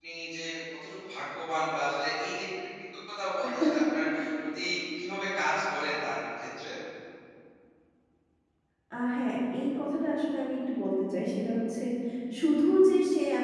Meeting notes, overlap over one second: none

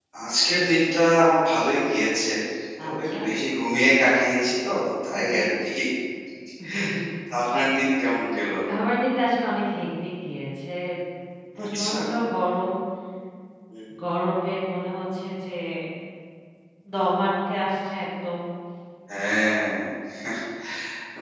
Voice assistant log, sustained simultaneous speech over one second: none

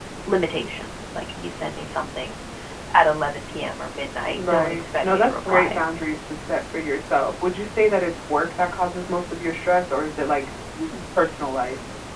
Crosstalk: present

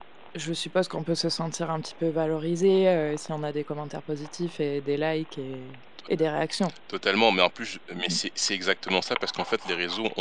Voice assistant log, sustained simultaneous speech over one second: none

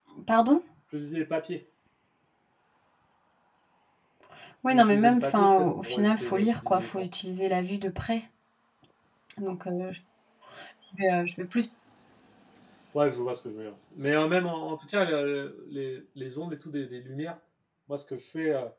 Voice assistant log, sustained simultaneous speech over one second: present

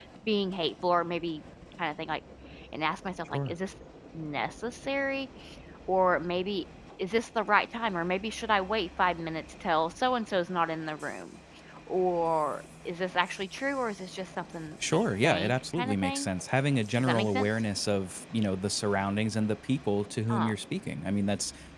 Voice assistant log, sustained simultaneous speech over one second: present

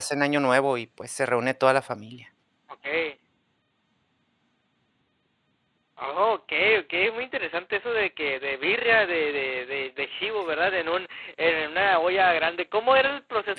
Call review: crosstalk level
none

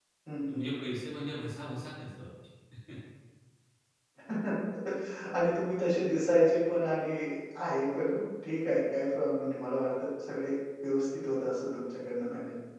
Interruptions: none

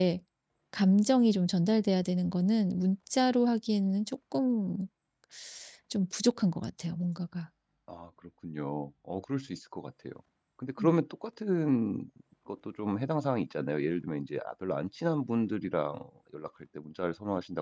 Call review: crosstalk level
none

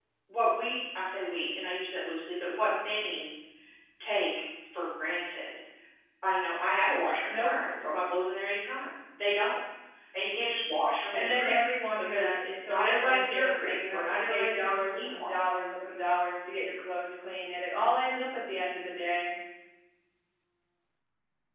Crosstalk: present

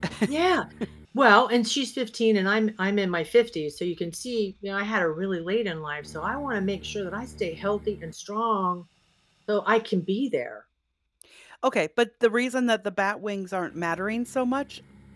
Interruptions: none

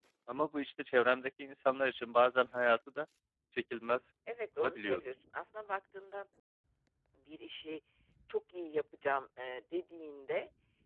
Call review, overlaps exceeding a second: none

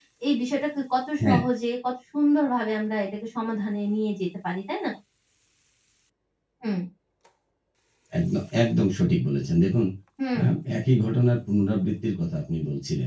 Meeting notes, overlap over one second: none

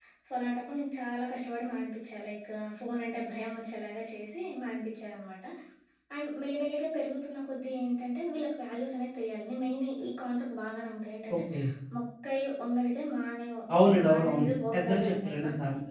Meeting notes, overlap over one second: present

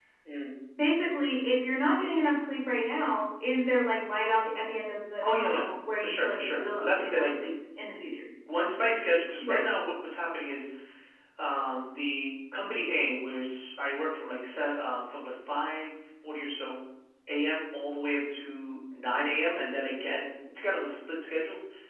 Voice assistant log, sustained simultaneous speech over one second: present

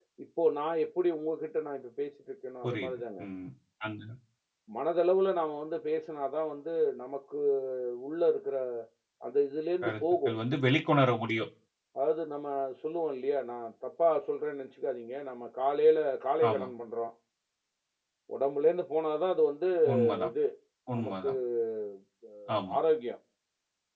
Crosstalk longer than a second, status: none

